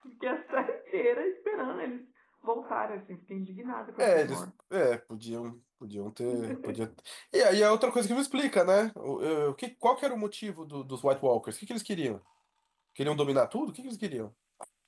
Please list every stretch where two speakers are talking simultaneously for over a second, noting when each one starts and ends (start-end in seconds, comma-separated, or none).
none